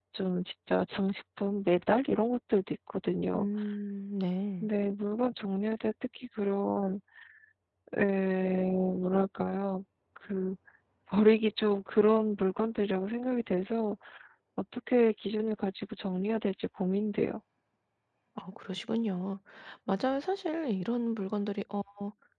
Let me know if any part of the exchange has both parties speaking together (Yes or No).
No